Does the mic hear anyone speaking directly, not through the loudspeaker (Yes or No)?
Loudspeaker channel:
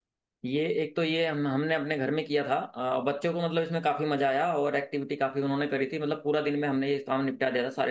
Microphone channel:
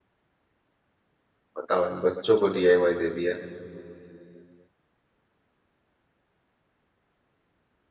Yes